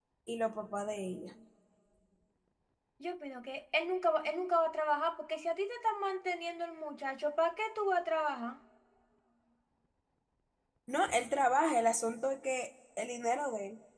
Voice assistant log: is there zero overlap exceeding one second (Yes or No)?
Yes